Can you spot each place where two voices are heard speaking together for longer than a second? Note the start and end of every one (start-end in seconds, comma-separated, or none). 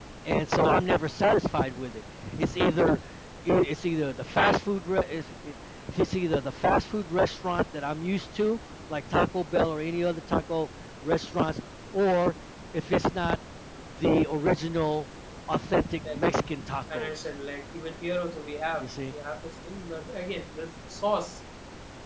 none